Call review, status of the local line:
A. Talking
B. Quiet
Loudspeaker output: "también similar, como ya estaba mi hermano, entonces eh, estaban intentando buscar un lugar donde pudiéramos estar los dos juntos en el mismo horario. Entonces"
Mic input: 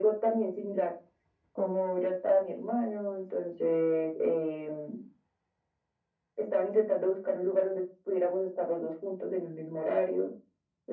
B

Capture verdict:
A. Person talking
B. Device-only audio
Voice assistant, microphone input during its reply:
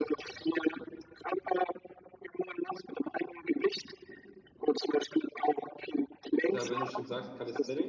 A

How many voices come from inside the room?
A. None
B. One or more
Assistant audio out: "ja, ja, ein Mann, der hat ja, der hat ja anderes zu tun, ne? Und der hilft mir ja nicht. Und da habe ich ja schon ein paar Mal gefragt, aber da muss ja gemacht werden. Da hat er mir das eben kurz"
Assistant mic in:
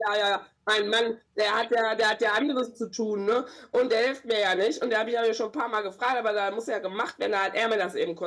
A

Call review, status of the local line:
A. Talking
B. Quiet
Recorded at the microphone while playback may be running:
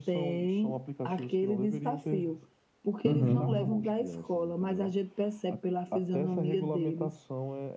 A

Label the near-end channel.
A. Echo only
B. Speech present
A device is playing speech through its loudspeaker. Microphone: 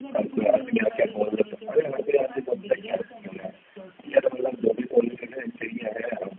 B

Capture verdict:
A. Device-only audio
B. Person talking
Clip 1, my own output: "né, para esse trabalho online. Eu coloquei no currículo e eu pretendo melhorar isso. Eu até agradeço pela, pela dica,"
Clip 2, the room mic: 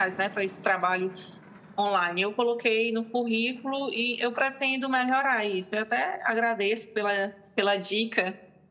A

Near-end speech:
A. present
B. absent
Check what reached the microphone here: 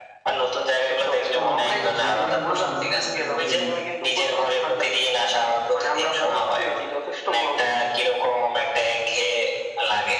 A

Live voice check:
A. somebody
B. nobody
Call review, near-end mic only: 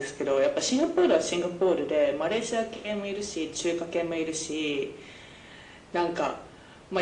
B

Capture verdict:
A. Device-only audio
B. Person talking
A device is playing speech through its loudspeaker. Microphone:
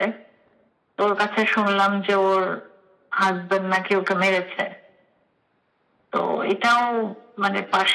A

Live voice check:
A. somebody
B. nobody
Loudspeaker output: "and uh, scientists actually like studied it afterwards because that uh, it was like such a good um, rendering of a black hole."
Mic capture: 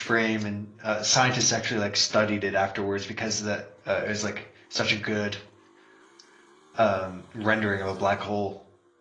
B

